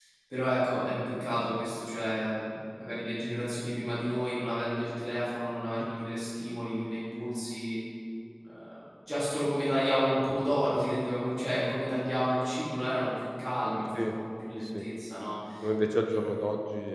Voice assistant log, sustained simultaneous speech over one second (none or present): none